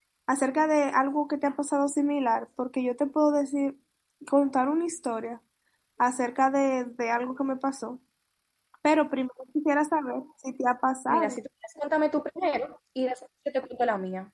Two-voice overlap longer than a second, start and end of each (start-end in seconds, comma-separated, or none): none